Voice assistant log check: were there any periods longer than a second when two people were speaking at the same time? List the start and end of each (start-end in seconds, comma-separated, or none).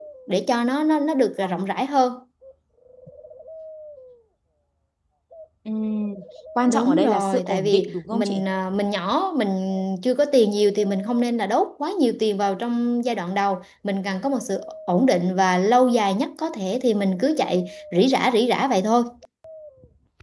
6.7-8.4